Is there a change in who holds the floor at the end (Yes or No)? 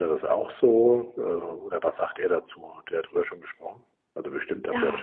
Yes